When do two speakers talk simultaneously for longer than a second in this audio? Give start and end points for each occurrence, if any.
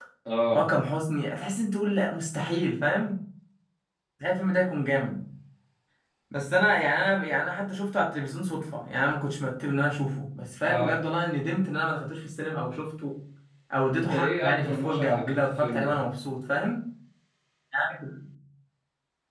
13.9-16.0

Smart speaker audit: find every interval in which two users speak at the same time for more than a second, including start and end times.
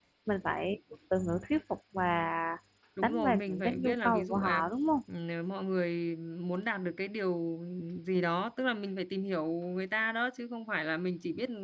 3.0-4.7

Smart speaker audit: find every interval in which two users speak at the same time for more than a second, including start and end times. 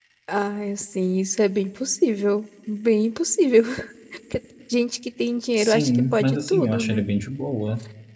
5.6-7.0

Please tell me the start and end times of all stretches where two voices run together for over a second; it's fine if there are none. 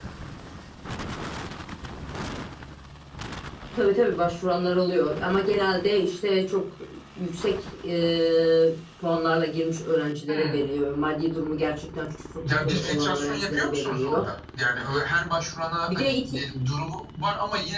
12.4-14.3

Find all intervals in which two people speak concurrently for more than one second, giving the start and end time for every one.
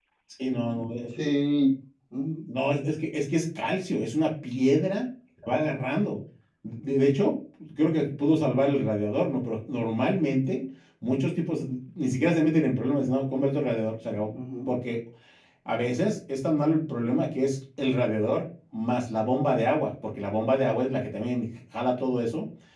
none

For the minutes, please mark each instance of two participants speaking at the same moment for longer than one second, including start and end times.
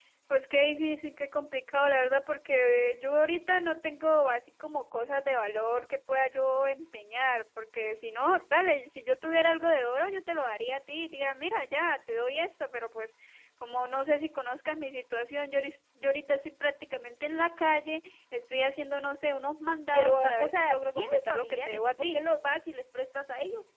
19.9-22.2

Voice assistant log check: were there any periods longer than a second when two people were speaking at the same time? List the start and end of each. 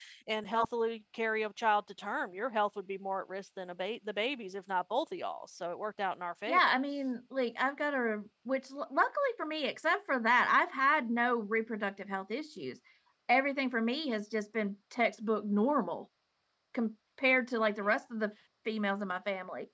none

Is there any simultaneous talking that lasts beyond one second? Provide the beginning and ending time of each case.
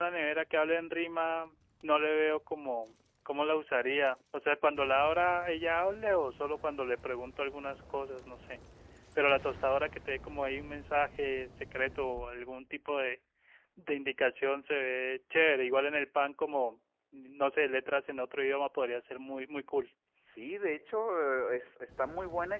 none

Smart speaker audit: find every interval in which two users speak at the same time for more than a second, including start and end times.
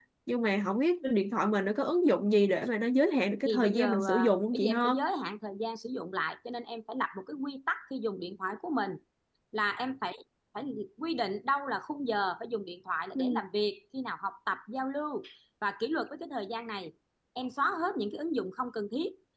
3.4-4.9

